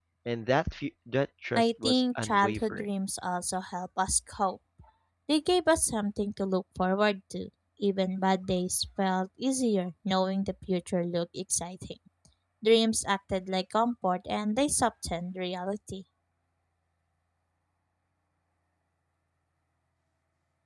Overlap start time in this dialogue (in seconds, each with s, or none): 1.6 s